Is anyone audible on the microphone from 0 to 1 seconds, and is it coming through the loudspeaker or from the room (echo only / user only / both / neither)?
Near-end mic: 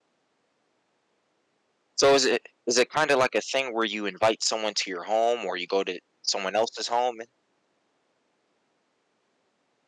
neither